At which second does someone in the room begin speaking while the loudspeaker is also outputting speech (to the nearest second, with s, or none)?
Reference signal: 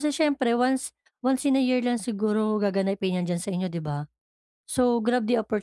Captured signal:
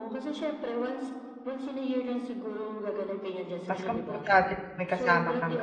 4 s